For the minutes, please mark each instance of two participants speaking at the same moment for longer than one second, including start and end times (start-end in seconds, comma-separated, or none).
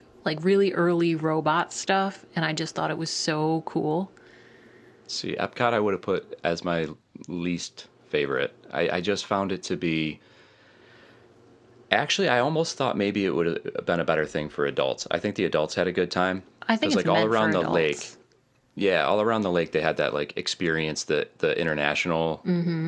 16.8-18.1